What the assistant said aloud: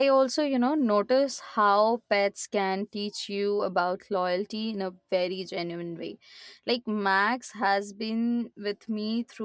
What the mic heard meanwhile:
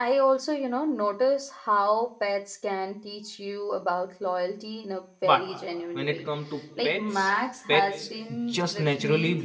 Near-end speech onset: 5.2 s

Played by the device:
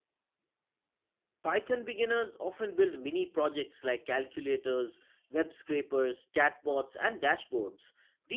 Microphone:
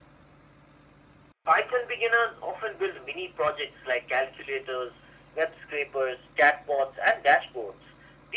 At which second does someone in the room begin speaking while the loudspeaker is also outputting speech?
none

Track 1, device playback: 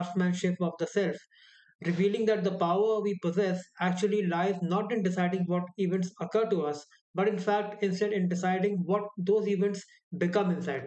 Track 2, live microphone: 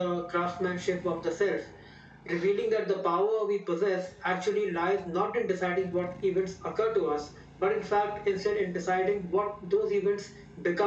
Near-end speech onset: none

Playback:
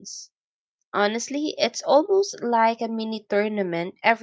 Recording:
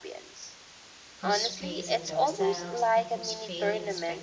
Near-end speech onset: 1.2 s

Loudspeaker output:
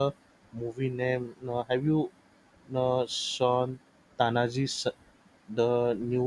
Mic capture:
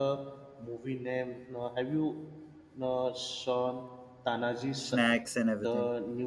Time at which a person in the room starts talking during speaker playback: 4.8 s

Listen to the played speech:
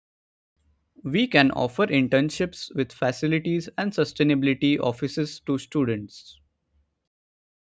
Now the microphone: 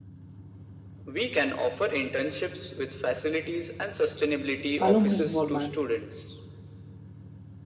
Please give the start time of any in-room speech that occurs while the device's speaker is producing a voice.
4.8 s

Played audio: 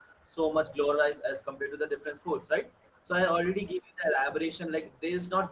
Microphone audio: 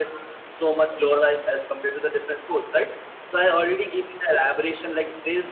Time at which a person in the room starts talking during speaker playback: none

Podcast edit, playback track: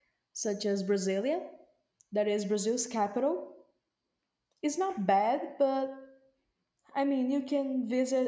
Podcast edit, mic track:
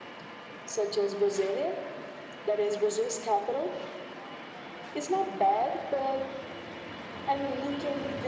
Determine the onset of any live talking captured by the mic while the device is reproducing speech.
none

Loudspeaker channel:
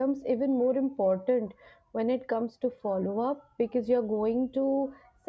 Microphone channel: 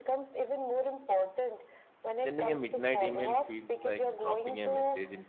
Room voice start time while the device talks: 2.1 s

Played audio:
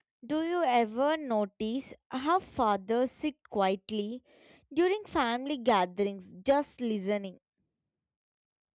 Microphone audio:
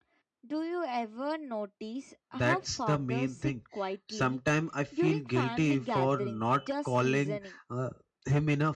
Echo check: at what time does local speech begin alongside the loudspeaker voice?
2.3 s

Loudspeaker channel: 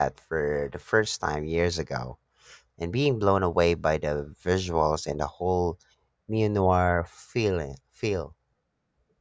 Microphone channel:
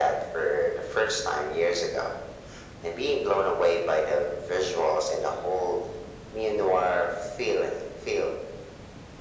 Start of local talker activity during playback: none

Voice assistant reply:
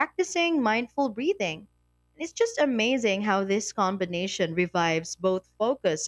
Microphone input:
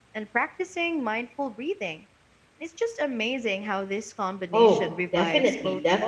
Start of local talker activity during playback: 4.5 s

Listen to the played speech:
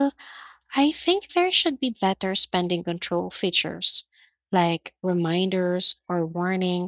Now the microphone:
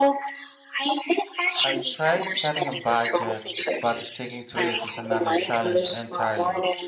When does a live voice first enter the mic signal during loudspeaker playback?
1.6 s

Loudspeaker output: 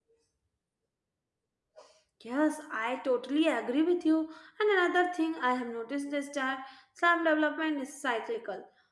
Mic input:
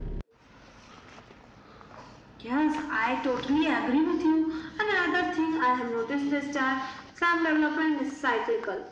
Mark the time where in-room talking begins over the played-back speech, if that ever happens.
none

